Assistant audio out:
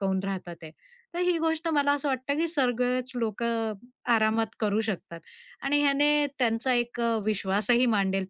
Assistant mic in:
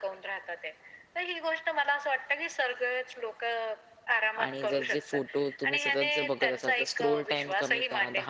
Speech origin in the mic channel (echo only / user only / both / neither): both